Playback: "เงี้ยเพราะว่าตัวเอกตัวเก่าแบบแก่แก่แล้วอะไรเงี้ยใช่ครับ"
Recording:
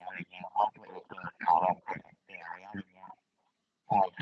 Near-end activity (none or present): none